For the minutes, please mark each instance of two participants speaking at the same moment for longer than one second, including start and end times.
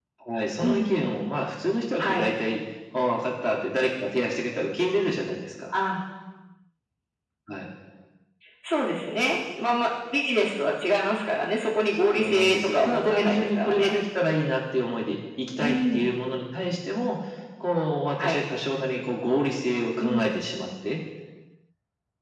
12.1-13.9

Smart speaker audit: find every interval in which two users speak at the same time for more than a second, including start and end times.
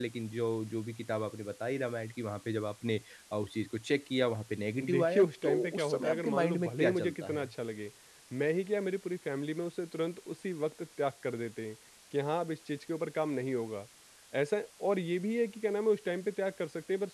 4.8-7.5

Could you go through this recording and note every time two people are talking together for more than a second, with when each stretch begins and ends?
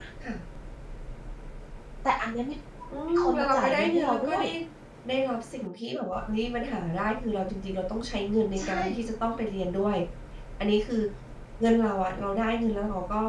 3.1-4.4

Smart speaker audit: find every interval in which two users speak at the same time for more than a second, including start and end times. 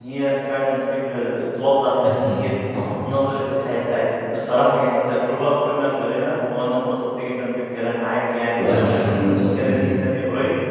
8.6-10.0

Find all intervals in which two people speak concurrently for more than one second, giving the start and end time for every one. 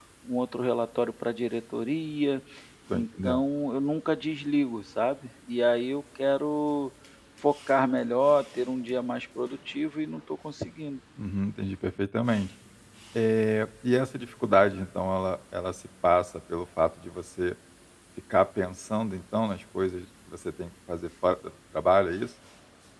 none

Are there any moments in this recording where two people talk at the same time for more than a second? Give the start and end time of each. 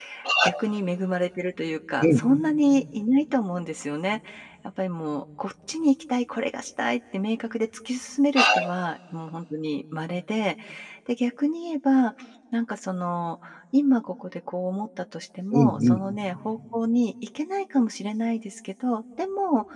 none

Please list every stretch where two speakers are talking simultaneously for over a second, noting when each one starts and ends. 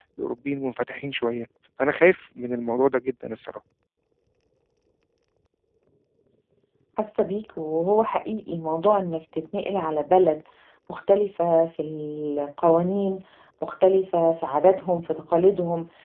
none

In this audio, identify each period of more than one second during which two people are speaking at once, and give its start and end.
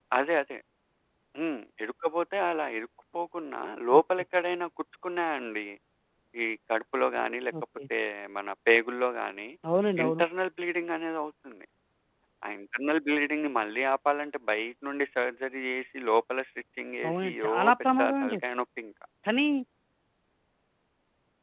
17.1-18.4

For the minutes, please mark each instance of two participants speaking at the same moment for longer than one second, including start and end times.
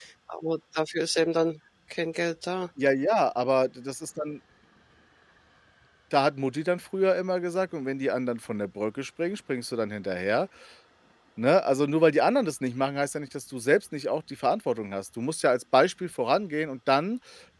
none

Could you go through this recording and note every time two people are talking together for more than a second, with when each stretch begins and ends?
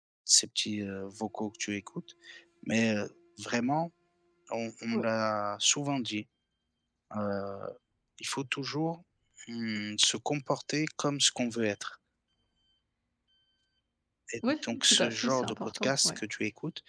14.6-16.2

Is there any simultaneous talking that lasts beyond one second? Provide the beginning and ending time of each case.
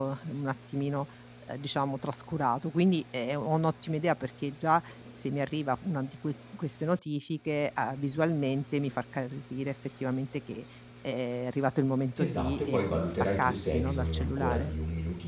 12.2-14.7

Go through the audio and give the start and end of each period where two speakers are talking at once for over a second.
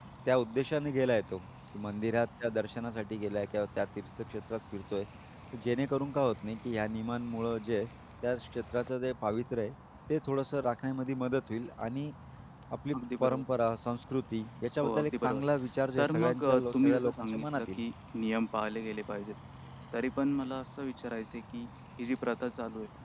16.0-17.8

